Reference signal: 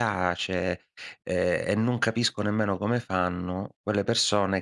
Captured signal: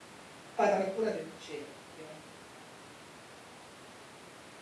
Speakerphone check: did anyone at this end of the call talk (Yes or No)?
Yes